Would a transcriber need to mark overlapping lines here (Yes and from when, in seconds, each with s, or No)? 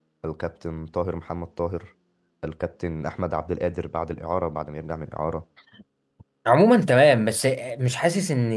No